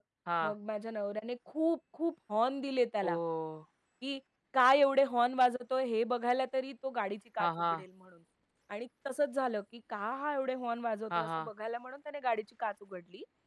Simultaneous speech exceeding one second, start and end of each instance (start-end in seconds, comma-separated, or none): none